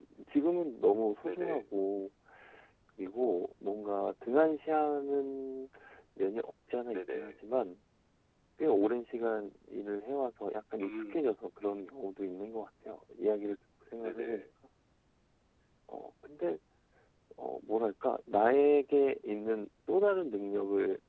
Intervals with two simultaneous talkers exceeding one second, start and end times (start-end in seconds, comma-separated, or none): none